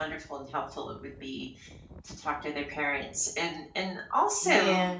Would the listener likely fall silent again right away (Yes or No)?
No